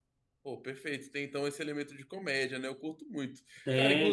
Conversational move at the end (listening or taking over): taking over